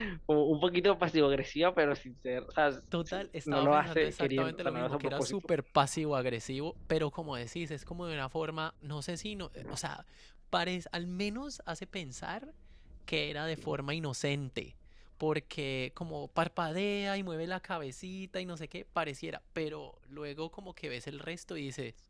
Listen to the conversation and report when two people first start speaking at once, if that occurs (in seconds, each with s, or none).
2.9 s